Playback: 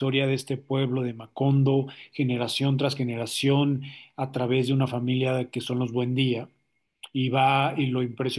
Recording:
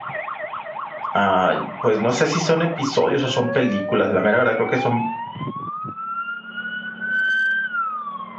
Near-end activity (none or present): present